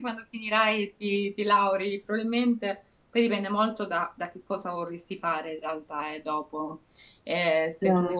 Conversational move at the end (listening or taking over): listening